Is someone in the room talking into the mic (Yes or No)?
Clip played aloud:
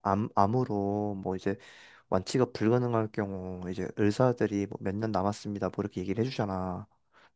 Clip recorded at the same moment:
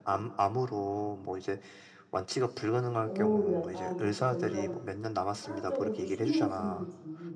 Yes